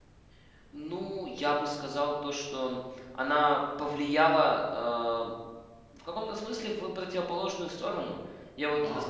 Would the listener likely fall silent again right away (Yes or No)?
Yes